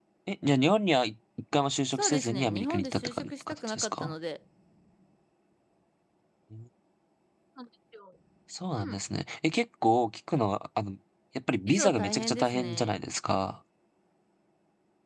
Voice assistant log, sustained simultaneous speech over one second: present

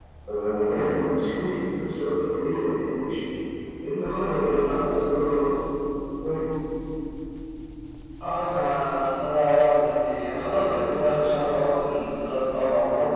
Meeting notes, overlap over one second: none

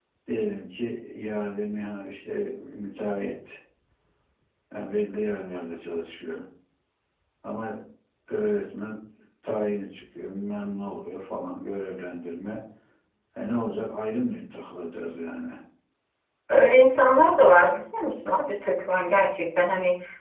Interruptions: none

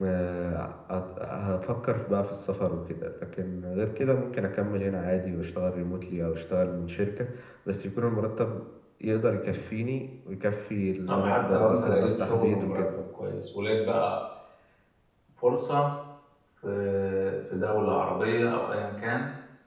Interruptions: present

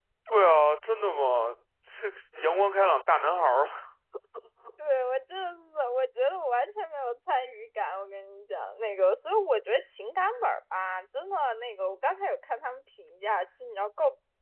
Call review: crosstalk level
none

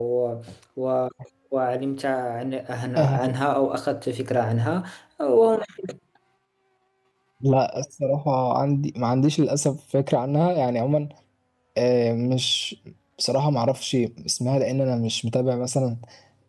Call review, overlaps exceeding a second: none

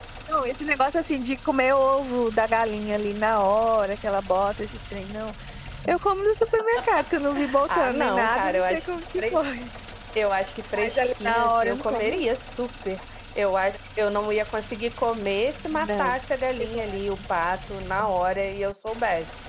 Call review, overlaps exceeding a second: present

